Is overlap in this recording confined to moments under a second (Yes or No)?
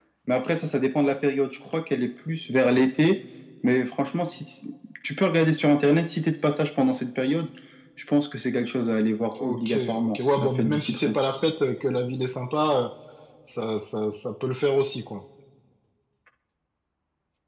No